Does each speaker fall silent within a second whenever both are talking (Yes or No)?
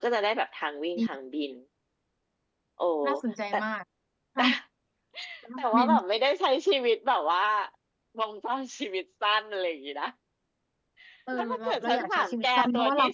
No